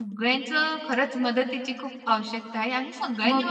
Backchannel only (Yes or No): No